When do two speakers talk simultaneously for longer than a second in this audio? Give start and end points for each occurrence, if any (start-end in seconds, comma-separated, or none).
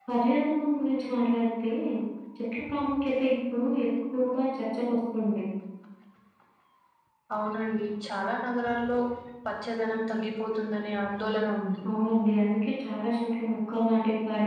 none